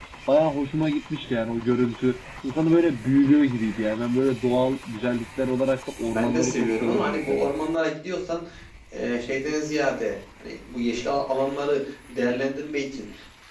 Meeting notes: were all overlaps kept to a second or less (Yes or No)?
No